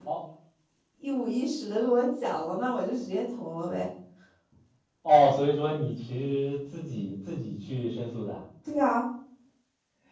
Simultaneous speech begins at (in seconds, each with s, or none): none